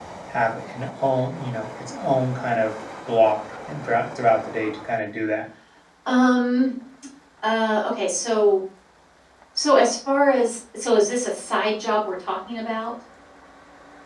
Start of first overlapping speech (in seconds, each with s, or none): none